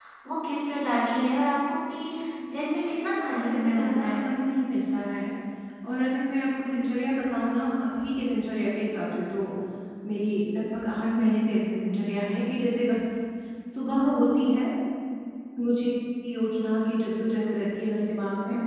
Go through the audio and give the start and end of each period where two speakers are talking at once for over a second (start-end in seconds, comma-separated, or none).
2.6-4.2